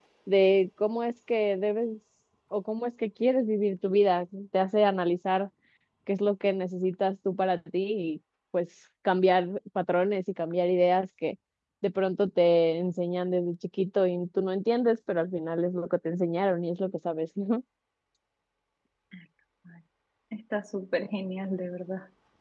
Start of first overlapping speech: none

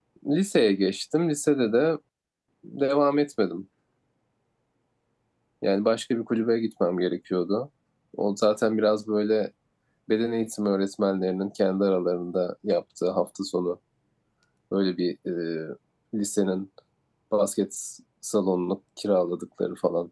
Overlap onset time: none

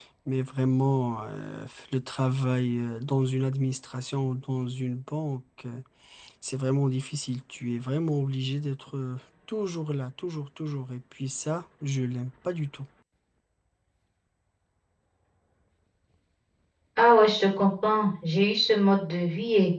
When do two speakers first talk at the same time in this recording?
none

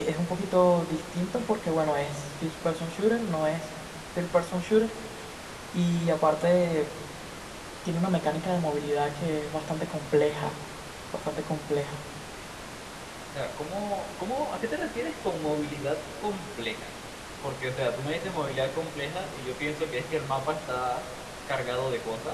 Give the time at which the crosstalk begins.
none

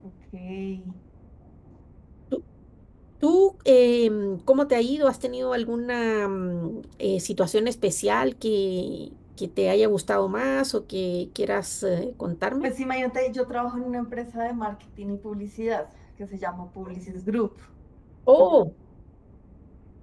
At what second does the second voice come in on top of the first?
none

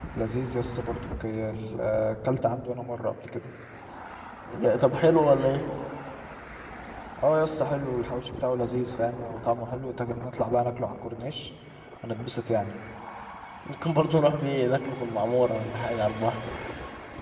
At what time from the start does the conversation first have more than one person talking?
none

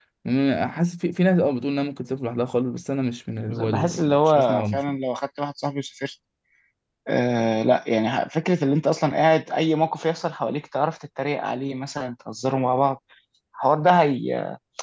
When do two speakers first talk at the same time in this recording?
3.5 s

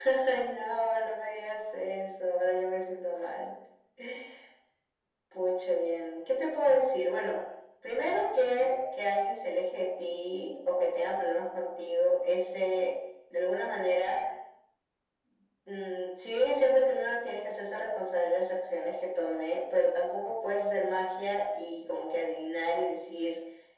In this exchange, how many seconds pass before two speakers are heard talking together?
none

